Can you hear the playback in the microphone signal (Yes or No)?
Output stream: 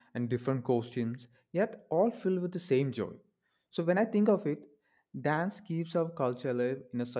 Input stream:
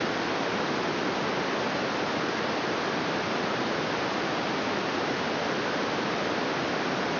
No